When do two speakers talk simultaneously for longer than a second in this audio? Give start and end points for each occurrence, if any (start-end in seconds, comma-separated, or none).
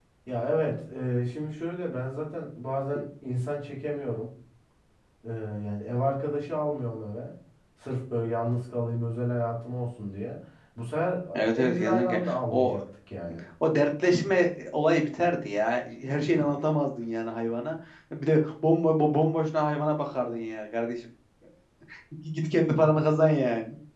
11.3-12.8